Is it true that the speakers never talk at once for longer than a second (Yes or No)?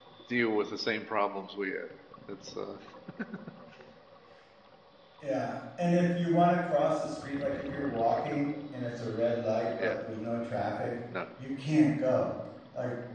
Yes